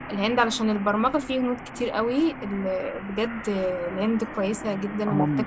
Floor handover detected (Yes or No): Yes